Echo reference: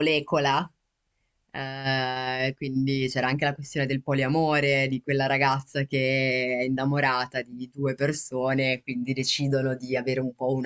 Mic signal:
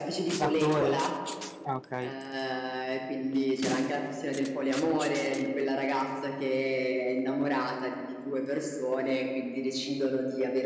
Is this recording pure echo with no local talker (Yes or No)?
No